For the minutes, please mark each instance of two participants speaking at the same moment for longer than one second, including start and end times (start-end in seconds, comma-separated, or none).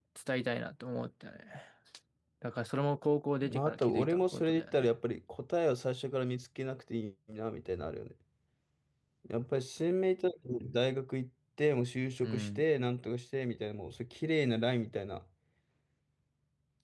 3.4-4.9